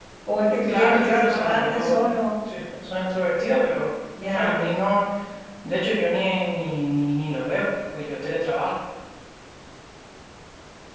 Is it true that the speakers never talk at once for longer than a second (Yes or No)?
No